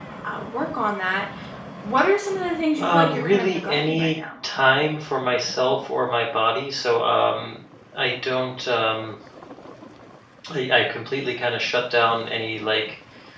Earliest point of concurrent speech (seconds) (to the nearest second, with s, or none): 3 s